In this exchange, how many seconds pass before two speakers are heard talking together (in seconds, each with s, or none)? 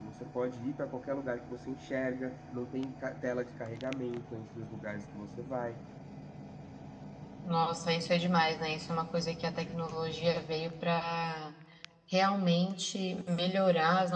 none